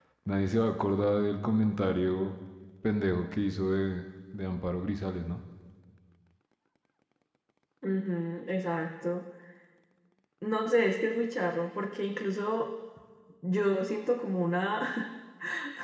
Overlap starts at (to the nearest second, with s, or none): none